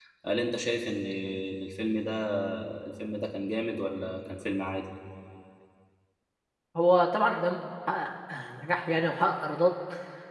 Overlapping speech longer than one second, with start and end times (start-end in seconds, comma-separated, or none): none